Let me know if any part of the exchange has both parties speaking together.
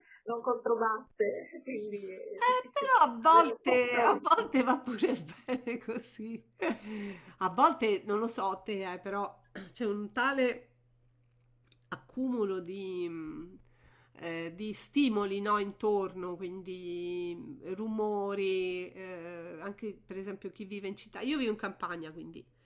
Yes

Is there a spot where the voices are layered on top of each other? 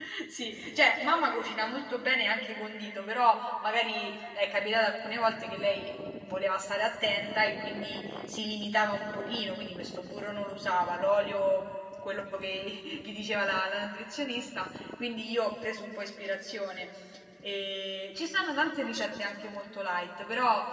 No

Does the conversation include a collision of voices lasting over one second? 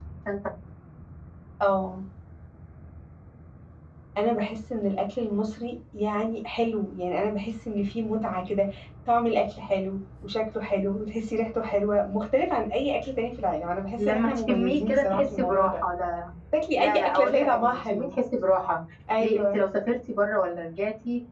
Yes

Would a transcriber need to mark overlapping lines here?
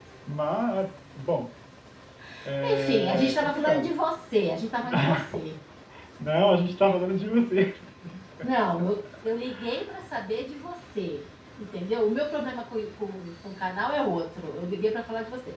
Yes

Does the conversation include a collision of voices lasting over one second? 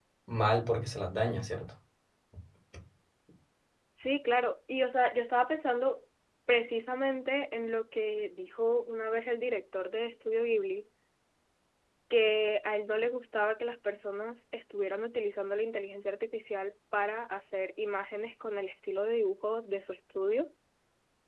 No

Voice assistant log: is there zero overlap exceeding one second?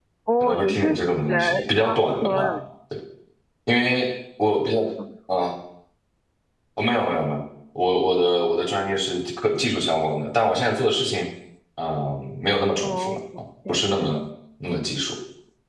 No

